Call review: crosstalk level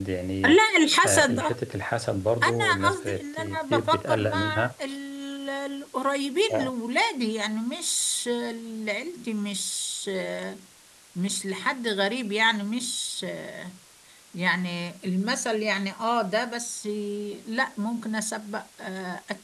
present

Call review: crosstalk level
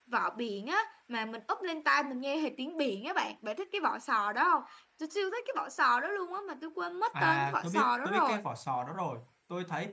present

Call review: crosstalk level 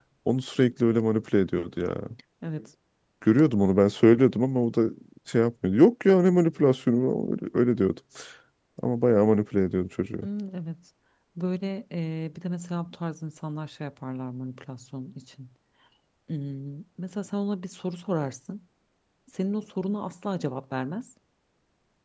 none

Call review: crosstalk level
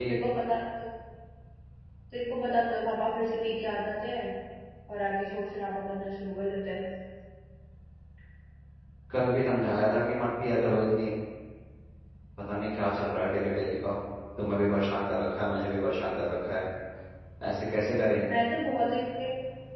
none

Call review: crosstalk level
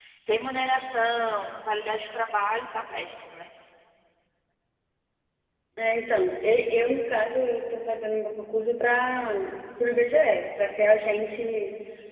none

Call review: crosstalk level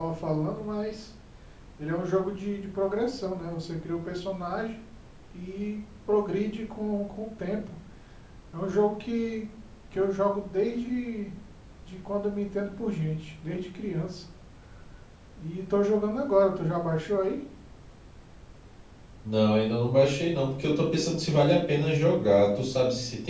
none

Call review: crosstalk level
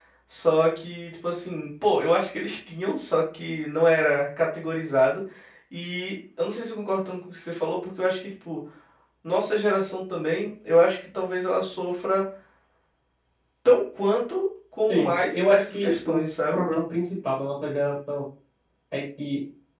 present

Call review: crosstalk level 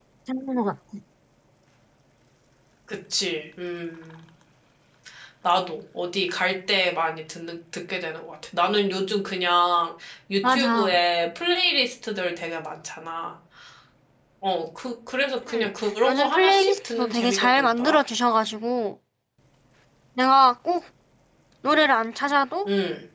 present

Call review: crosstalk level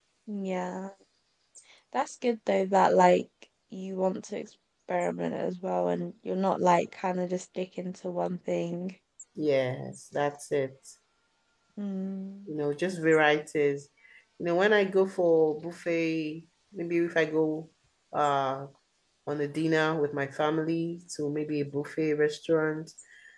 none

